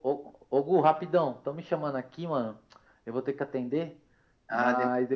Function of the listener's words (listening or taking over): listening